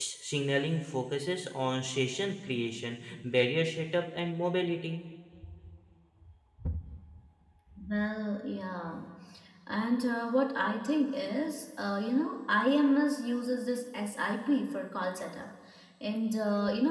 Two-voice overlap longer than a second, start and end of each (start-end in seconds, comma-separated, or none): none